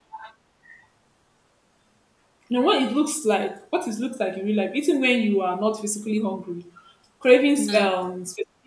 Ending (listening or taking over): listening